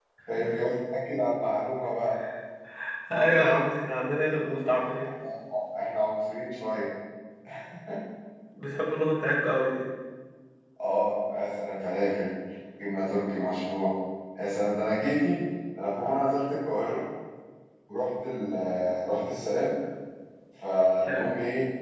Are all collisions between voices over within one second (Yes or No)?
Yes